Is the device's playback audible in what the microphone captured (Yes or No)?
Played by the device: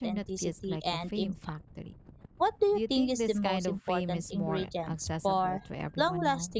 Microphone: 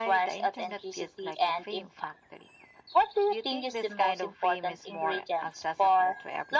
Yes